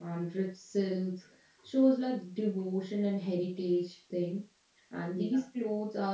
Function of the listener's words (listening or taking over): listening